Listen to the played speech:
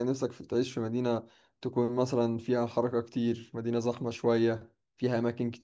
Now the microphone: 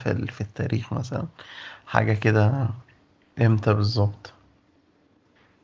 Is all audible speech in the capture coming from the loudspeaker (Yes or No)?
No